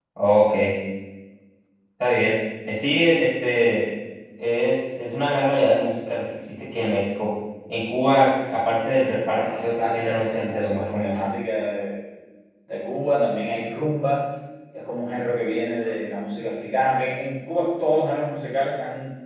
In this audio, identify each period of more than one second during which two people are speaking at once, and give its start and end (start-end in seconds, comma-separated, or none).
9.3-11.2